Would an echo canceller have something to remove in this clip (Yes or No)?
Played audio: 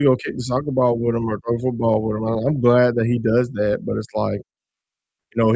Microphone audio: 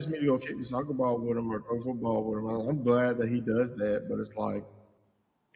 Yes